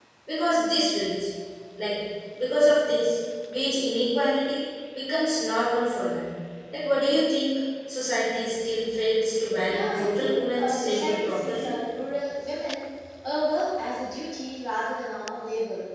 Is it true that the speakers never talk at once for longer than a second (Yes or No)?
No